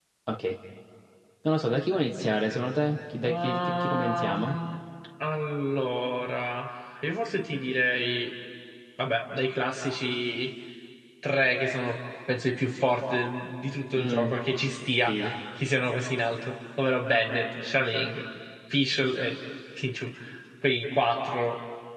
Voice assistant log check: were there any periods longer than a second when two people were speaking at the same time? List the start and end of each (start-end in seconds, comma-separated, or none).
3.2-4.6